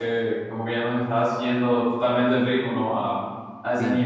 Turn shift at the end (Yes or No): Yes